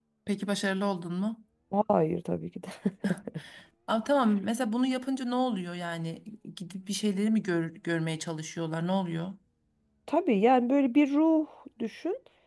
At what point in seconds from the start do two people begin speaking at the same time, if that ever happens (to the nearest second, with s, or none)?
none